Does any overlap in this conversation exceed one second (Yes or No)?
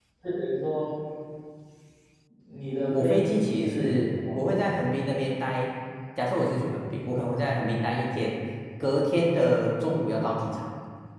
Yes